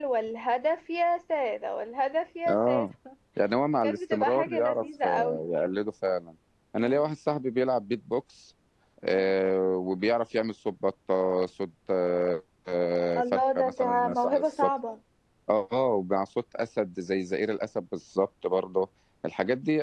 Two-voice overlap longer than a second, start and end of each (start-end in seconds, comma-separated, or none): 3.8-5.4, 13.2-14.7